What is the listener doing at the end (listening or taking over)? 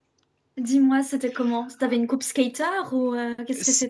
taking over